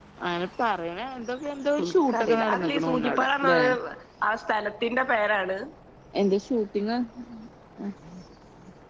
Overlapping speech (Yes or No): Yes